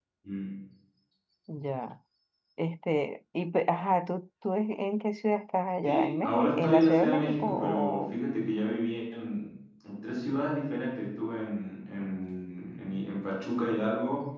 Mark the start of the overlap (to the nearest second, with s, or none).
6 s